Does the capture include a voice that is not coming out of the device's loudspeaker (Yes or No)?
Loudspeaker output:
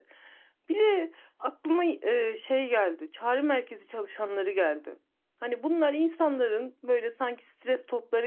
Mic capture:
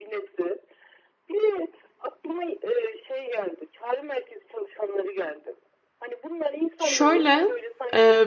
Yes